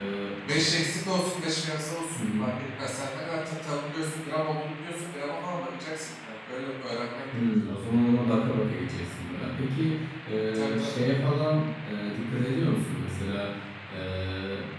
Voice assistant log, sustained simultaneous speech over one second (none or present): none